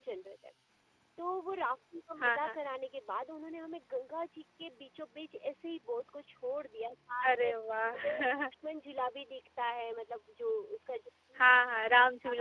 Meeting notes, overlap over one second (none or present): none